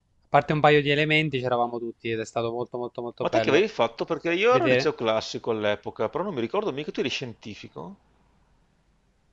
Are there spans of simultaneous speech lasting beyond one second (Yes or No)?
No